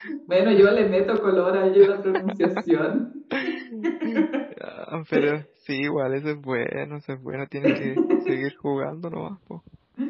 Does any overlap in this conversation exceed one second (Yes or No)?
No